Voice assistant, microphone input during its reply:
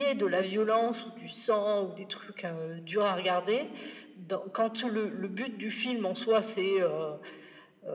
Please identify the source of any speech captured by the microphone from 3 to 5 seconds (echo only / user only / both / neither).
echo only